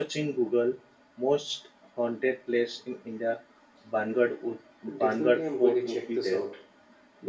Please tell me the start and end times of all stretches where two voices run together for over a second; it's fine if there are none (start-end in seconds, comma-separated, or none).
5.0-6.4